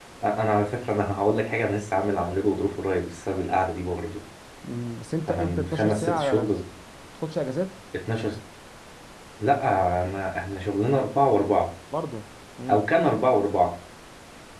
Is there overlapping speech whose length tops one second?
Yes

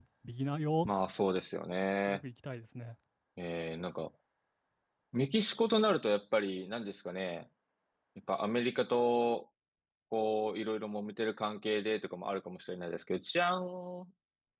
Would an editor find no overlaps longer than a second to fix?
Yes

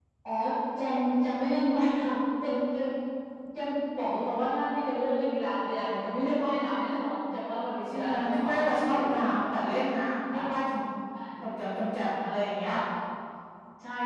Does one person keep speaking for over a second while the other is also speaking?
Yes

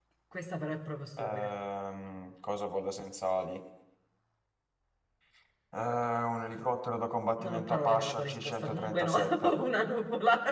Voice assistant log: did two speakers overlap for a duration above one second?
Yes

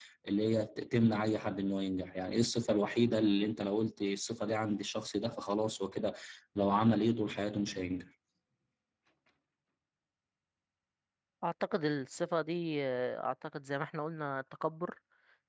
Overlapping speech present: No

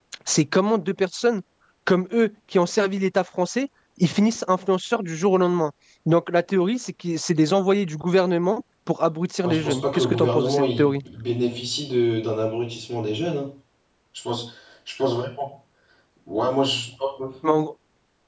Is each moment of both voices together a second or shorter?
No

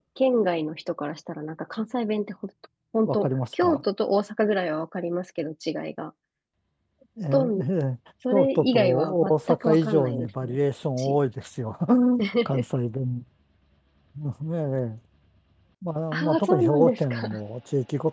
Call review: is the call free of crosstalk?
No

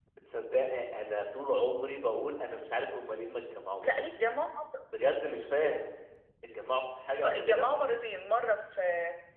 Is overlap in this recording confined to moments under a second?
Yes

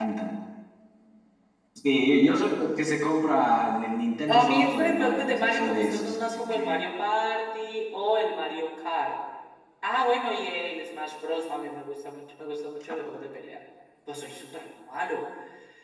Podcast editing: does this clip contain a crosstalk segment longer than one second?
Yes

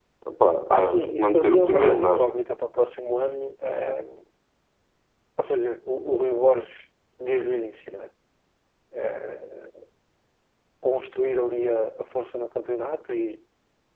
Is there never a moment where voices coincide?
No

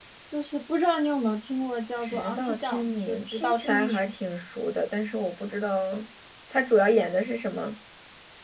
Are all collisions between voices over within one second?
No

